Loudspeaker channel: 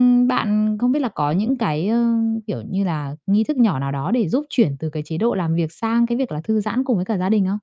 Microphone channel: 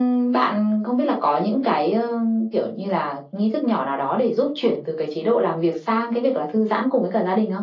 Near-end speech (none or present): none